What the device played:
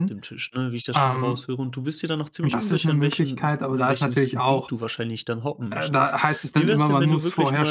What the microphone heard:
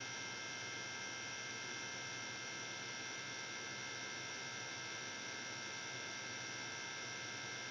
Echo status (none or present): none